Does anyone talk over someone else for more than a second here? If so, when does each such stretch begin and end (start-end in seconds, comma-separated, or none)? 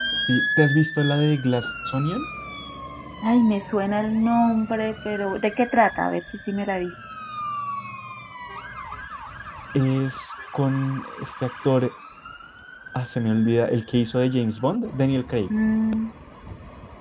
none